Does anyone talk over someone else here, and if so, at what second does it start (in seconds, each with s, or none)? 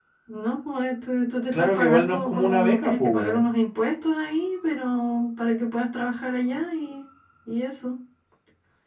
1.5 s